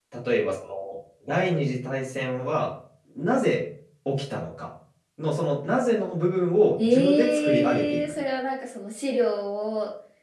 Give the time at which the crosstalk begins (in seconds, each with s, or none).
6.8 s